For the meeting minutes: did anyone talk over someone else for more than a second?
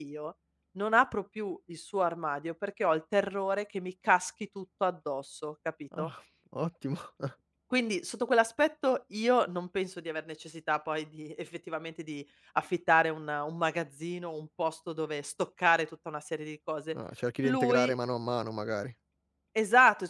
No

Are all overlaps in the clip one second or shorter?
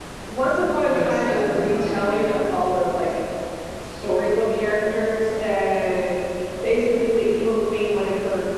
No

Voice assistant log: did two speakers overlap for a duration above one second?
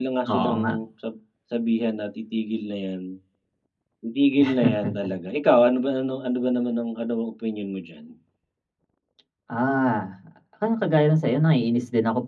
No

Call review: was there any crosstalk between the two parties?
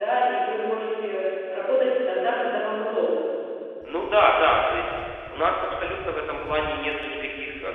No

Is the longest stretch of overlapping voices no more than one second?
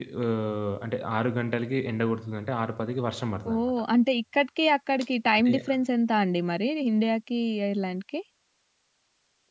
Yes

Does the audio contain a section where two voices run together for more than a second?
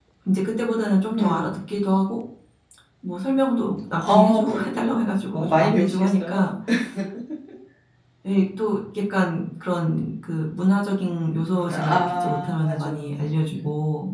Yes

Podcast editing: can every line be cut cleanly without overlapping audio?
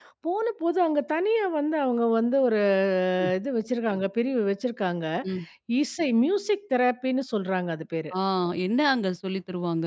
Yes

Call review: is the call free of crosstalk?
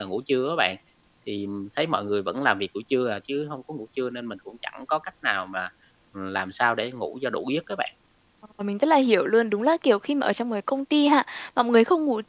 Yes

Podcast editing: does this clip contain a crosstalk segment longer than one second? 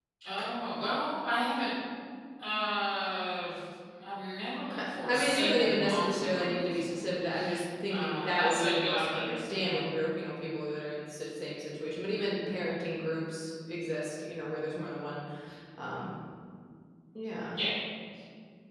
Yes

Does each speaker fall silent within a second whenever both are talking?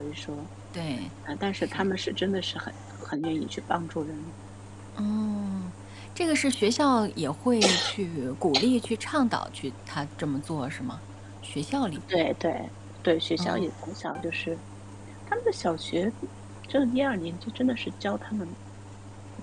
Yes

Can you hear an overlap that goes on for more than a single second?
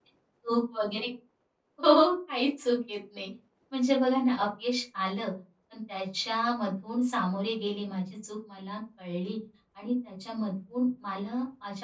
No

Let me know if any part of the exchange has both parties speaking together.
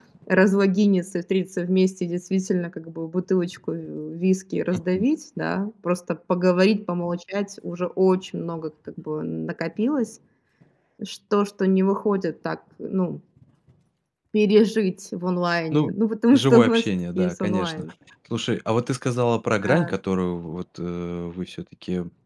Yes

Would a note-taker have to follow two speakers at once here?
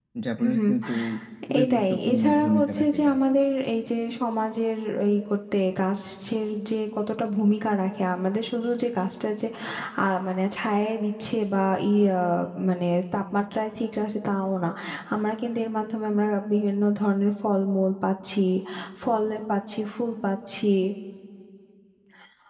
Yes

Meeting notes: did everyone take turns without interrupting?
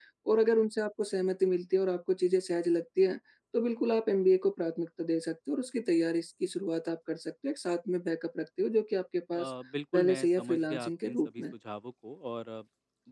No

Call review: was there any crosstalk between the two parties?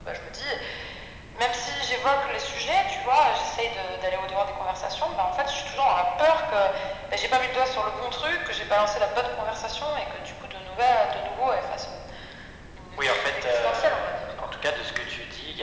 Yes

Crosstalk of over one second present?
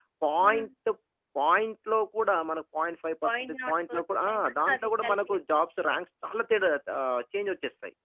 Yes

